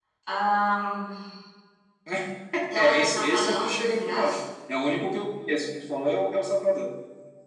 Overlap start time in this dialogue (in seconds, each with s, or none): 2.7 s